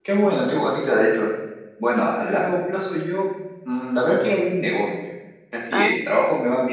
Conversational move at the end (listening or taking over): listening